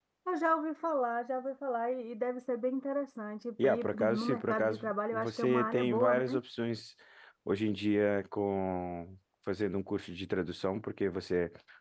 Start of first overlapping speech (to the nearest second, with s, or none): 4 s